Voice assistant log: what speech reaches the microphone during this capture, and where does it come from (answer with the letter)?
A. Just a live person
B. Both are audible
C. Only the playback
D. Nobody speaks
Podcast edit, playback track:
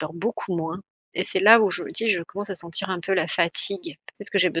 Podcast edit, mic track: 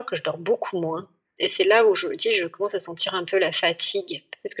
C